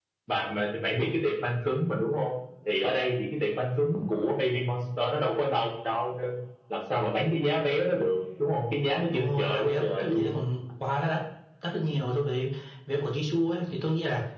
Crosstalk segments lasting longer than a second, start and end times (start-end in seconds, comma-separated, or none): 9.1-10.3